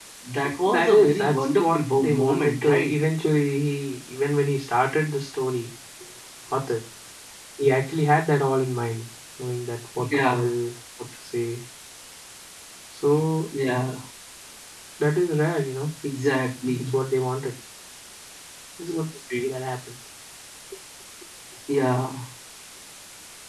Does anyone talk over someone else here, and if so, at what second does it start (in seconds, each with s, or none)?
0.7 s